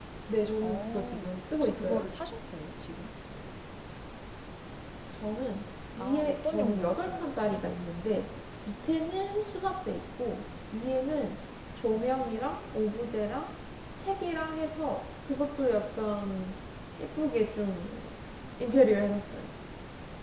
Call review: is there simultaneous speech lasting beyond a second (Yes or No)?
Yes